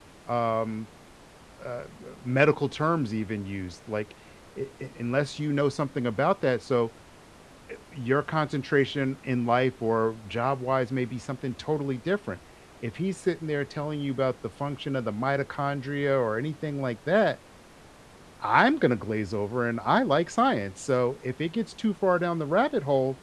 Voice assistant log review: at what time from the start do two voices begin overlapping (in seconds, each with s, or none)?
none